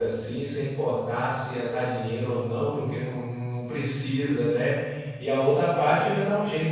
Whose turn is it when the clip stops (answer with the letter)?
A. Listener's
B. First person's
B